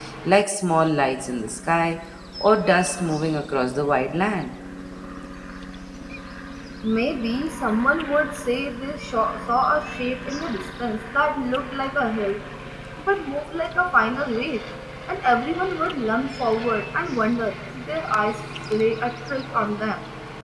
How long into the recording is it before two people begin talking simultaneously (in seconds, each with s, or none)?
none